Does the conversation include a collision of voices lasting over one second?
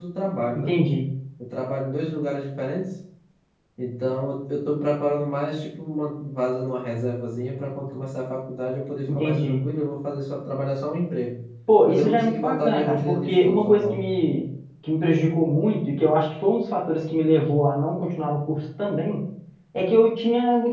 Yes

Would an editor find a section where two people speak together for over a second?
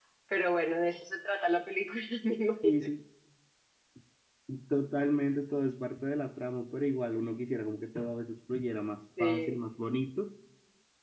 No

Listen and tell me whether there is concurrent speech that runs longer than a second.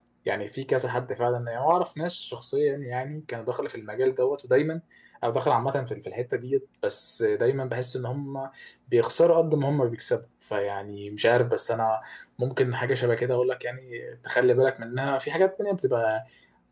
No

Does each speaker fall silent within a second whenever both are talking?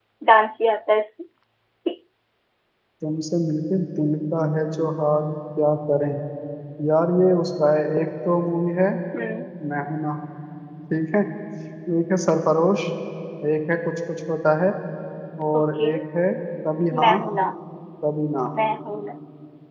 Yes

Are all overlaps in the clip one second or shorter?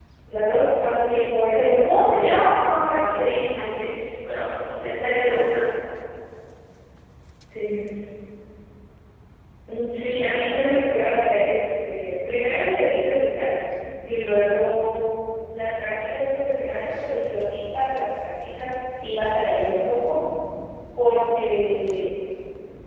No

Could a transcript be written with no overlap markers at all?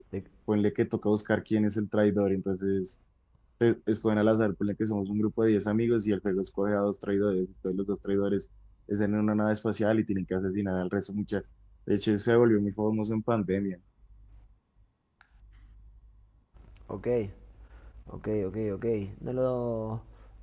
Yes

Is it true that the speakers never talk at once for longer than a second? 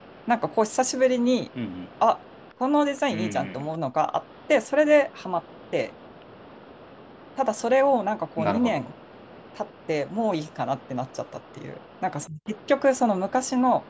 Yes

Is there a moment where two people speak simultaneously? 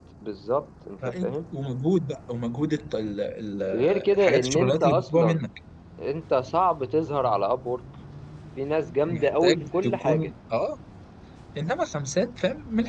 Yes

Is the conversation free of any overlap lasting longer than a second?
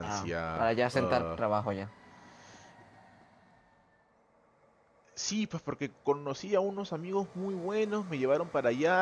No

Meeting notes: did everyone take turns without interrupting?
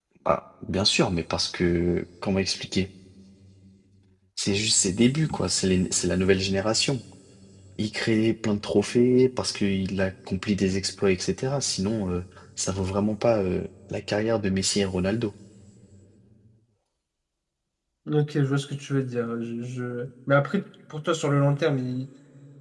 Yes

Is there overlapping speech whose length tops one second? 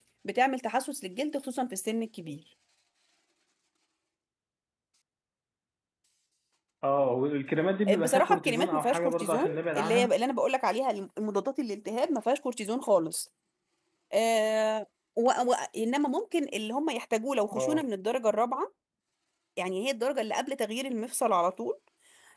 Yes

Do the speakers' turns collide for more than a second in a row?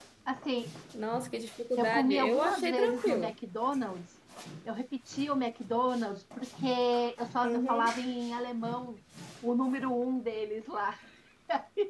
Yes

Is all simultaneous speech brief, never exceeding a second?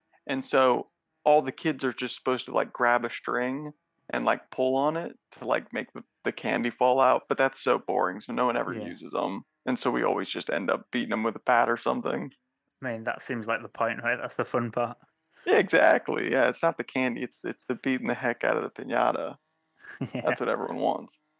Yes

